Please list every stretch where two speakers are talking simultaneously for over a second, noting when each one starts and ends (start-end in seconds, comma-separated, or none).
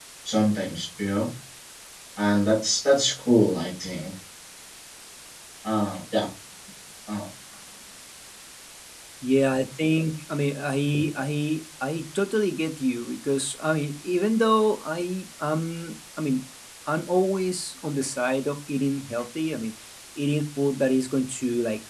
none